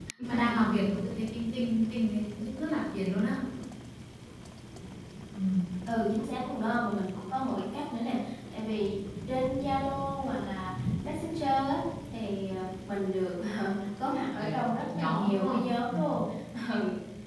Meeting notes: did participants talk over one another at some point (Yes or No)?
Yes